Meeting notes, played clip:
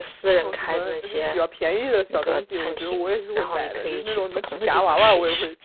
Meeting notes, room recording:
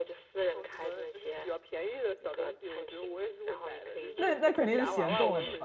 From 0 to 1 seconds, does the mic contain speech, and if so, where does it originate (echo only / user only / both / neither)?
echo only